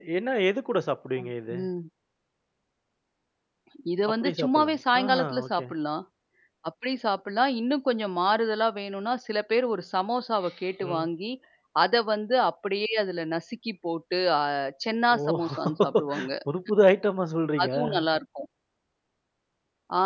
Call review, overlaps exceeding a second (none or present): present